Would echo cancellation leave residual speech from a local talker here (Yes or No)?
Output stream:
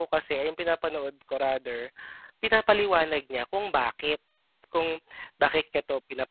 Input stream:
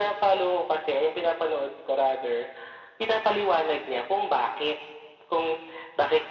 No